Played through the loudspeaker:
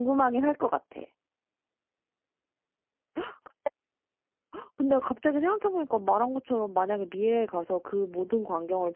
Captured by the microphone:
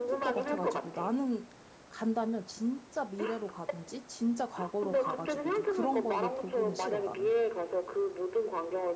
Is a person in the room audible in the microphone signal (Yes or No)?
Yes